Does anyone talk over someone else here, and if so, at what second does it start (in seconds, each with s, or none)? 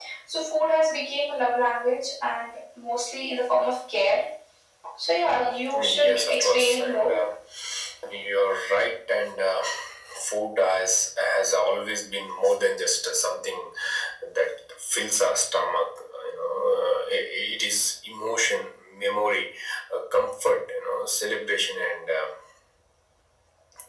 5.7 s